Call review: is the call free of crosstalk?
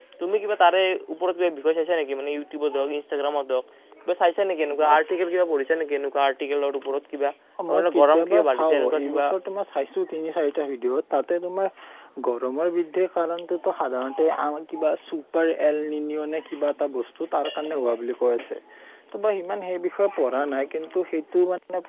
No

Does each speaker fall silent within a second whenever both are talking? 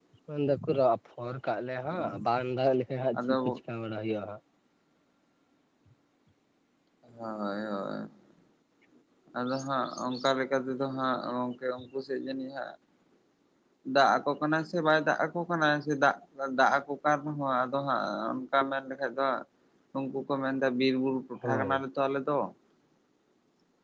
Yes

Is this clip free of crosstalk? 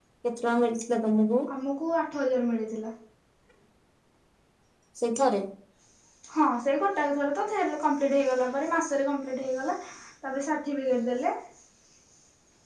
Yes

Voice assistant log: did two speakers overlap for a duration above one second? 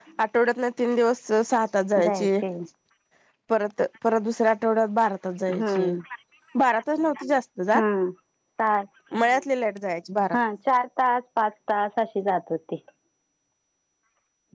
No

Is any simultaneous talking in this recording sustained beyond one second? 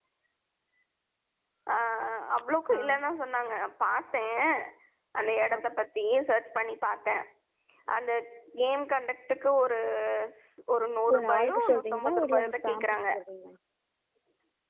Yes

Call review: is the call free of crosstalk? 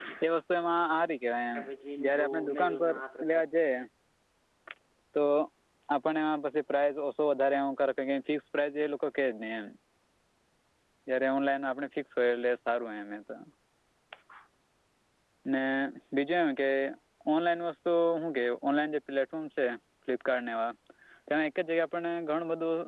No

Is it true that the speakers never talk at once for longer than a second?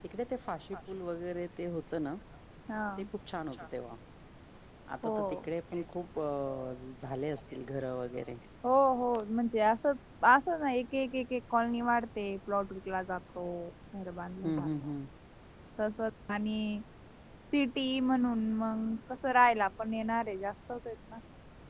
Yes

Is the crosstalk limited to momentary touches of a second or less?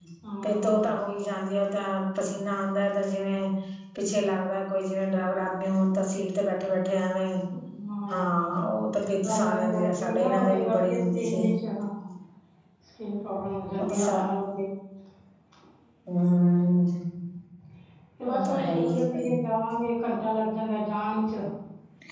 No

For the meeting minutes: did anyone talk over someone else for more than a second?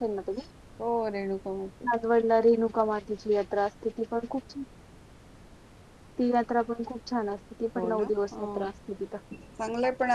No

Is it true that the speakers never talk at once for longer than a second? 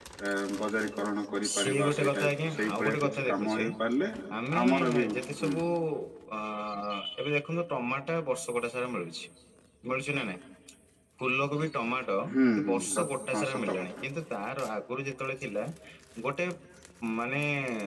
No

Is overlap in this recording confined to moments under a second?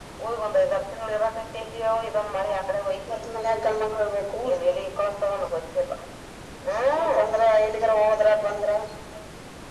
Yes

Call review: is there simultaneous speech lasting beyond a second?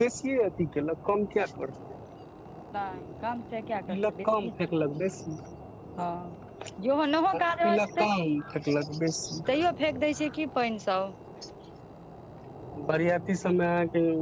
No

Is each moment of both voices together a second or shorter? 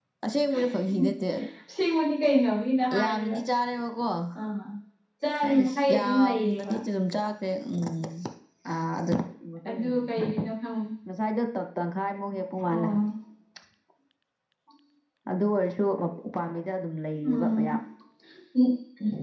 No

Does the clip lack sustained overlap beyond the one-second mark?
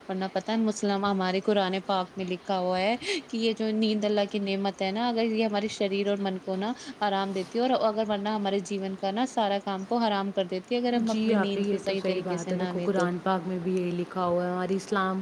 No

